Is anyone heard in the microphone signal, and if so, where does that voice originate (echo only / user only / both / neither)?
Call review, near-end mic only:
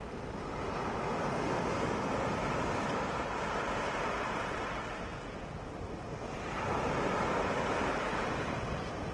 neither